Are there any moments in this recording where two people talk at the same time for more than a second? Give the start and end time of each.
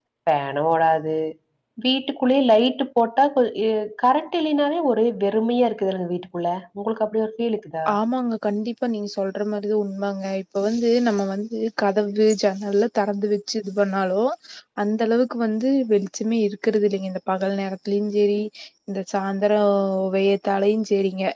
none

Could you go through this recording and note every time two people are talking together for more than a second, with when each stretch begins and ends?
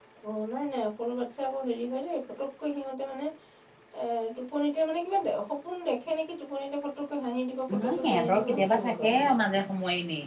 7.8-9.3

